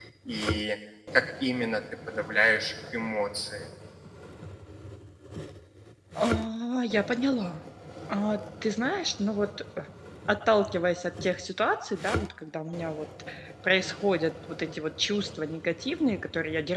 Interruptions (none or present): none